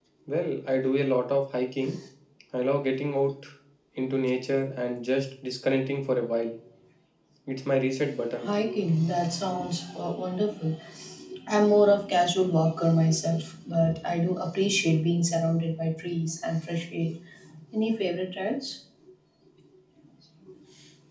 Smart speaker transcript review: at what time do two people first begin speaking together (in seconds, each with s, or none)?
none